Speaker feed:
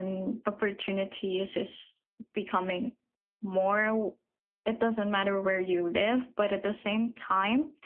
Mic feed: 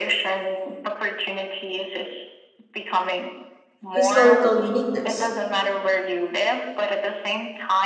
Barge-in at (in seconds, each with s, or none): 3.9 s